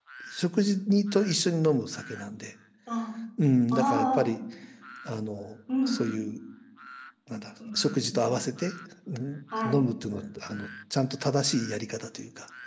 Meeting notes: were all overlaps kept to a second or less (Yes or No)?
Yes